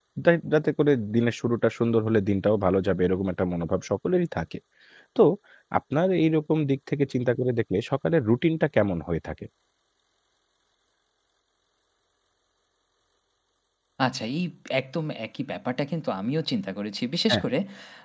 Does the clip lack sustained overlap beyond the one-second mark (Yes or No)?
Yes